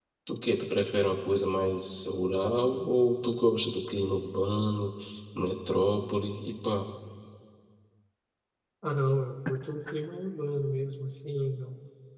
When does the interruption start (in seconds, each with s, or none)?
none